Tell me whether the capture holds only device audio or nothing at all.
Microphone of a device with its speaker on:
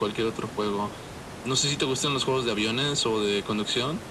Yes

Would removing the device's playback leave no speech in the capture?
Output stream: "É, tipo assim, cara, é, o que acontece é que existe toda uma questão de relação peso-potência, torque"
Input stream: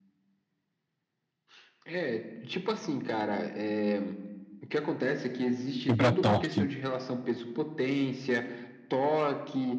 No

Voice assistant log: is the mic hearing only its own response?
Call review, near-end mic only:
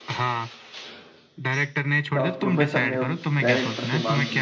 No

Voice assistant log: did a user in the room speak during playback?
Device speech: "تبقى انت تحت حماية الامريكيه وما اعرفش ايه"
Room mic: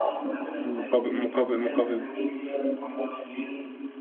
Yes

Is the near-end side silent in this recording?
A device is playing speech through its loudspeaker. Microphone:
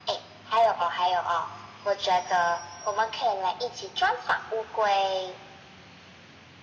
Yes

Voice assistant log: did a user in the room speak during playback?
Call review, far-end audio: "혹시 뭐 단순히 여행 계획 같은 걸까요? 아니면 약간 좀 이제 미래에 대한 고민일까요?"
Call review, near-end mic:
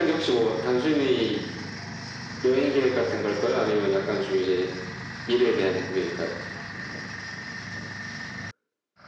No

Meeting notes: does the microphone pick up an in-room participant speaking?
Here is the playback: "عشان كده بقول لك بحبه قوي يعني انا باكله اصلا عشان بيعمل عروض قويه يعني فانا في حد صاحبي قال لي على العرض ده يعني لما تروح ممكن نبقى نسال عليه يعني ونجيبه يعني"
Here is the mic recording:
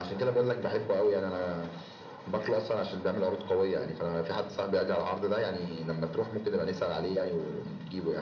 No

